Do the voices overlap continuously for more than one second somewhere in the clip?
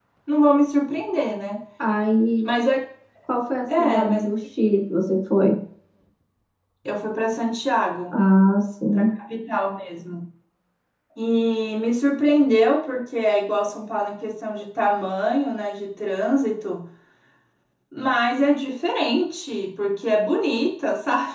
No

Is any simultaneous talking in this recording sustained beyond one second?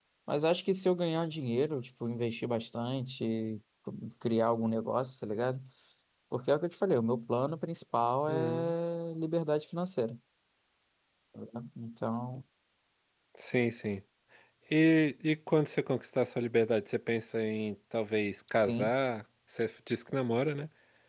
No

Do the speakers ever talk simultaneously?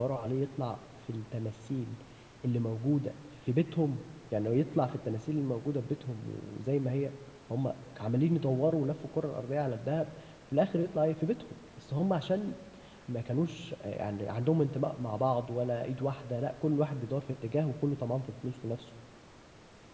No

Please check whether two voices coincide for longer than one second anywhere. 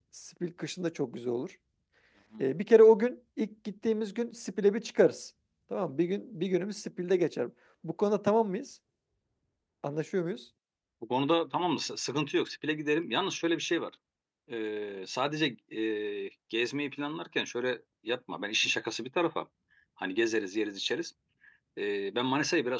No

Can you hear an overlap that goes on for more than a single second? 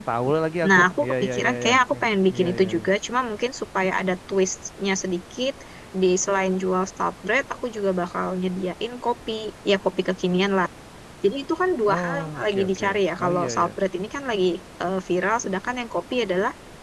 Yes, from 0.7 s

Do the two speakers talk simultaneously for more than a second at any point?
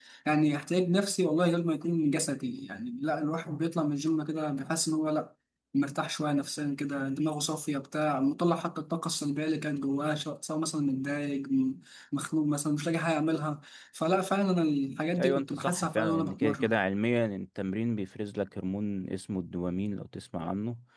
Yes, from 15.2 s

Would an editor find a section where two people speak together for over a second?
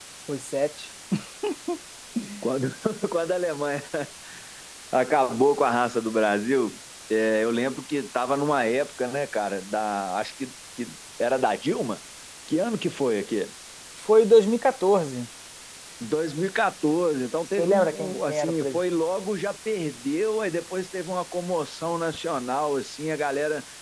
Yes, from 17.6 s

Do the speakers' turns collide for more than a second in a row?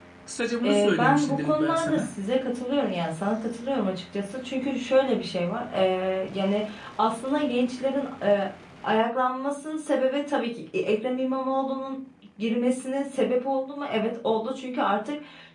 Yes, from 0.6 s

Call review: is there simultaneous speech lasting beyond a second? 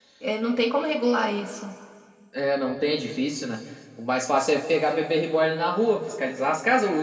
No

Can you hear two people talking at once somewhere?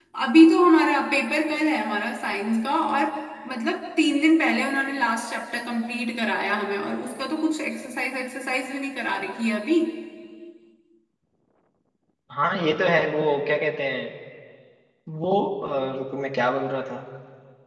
No

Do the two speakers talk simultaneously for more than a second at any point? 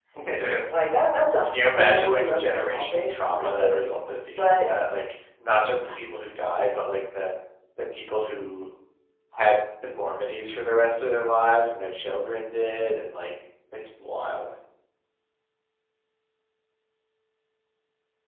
Yes, from 1.4 s

